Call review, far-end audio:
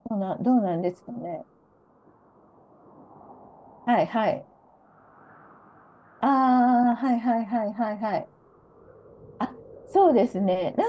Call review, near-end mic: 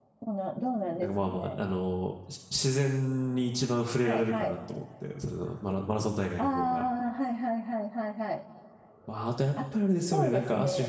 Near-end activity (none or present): present